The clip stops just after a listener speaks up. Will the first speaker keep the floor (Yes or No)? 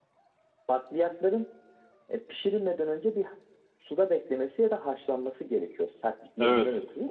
No